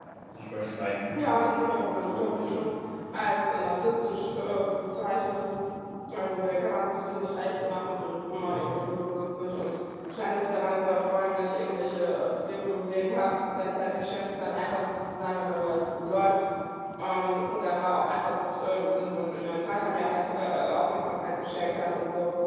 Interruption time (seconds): 1.1 s

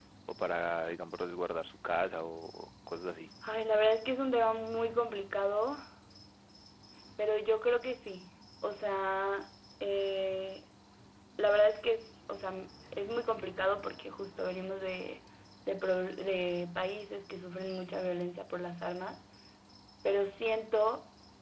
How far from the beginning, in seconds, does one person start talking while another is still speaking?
none

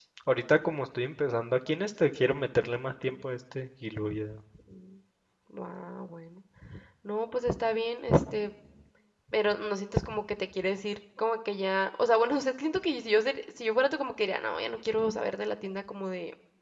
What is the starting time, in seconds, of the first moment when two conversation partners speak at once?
none

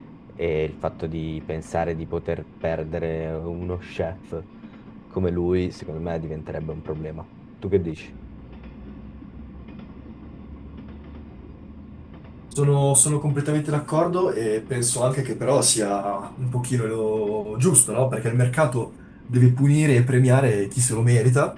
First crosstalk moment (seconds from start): none

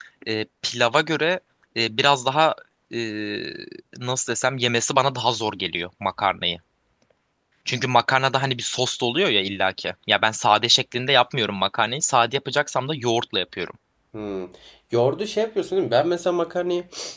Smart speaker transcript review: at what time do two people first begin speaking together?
none

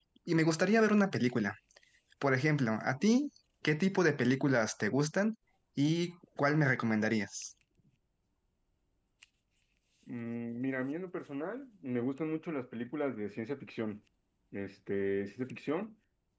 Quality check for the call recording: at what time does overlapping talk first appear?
none

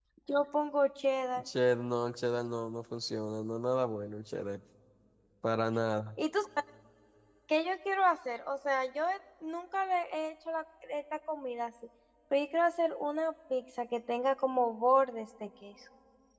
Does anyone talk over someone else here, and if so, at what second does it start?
none

